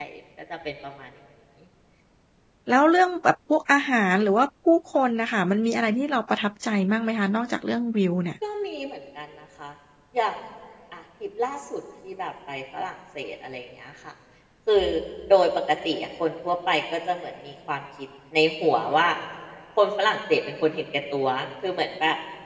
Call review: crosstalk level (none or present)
none